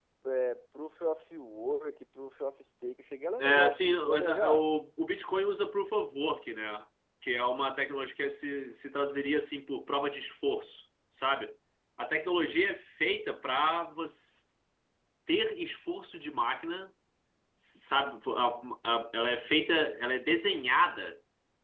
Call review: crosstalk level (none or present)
present